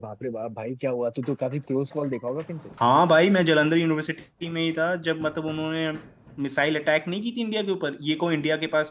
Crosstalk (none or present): none